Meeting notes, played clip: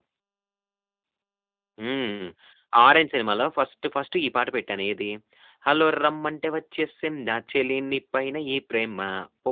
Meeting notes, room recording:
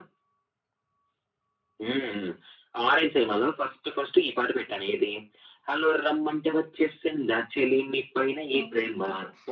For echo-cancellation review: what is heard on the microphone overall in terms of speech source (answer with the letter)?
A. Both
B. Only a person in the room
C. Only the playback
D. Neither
A